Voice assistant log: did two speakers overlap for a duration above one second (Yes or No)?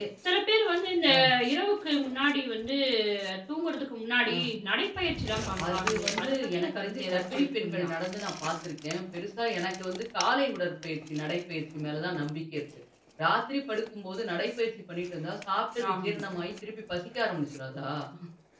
Yes